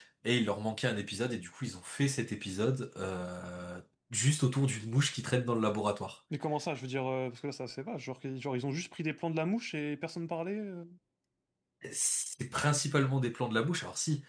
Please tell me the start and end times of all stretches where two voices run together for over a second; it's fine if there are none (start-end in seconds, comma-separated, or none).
none